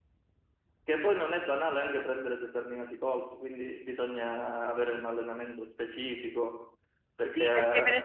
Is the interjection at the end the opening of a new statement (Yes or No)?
Yes